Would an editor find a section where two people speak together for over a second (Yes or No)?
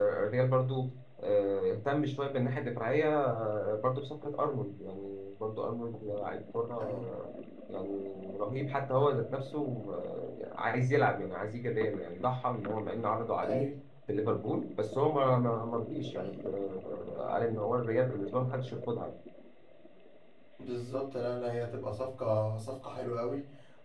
No